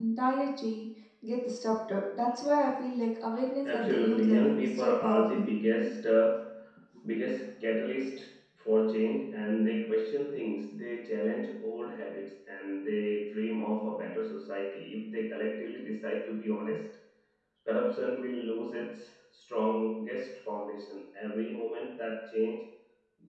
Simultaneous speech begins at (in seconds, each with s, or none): 3.6 s